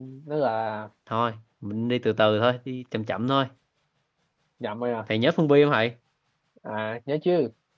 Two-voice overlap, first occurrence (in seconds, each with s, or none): none